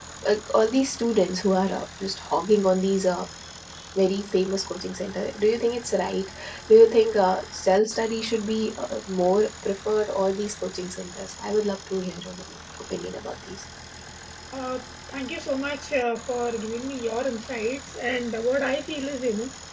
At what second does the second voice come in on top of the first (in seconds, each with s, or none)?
none